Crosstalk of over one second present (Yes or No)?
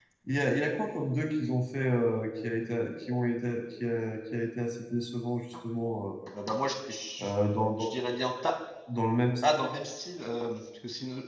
No